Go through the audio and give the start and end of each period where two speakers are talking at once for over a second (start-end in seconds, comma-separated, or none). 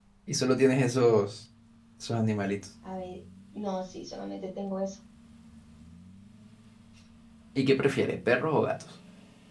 none